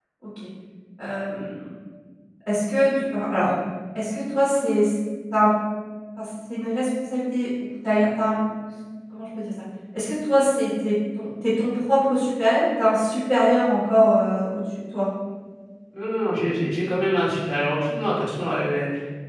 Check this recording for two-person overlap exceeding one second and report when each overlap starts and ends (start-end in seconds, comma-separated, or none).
none